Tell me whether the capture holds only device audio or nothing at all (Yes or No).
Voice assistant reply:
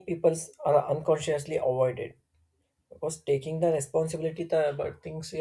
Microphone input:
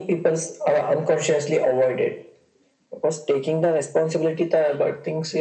Yes